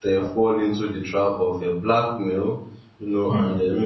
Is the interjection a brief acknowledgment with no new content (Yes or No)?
Yes